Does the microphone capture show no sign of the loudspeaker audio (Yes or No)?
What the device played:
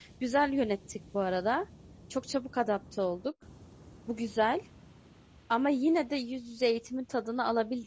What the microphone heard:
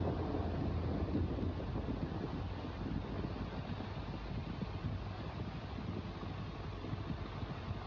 Yes